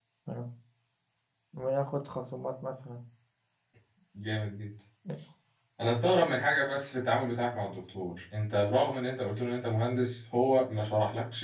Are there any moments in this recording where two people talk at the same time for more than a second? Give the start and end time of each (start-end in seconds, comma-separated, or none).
none